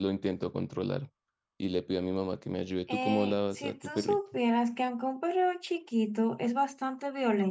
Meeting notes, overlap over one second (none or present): present